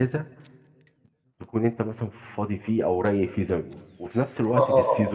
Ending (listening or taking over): listening